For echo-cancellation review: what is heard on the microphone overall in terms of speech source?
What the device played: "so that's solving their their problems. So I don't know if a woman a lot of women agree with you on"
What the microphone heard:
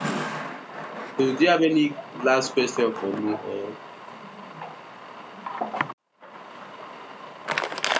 user only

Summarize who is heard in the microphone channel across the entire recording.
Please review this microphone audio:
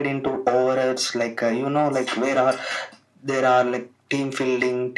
echo only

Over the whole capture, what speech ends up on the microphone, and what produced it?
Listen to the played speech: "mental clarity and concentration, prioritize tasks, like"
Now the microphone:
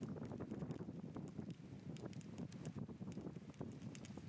neither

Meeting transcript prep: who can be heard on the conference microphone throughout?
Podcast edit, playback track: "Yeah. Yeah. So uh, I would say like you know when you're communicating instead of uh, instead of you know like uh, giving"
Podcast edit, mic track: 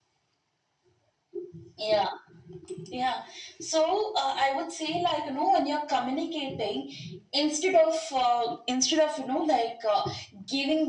echo only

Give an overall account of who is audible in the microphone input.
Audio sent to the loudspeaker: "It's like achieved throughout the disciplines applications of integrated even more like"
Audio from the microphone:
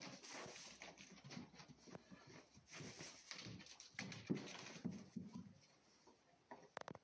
neither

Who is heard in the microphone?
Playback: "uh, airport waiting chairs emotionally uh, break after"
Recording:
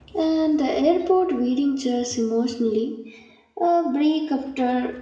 echo only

